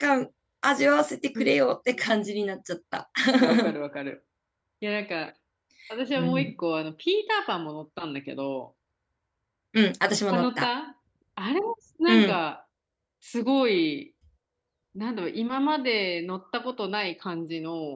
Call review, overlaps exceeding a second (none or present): none